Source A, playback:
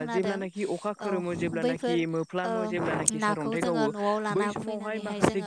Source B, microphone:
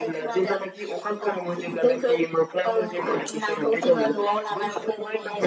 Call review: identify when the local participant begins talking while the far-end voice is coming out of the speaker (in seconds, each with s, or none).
none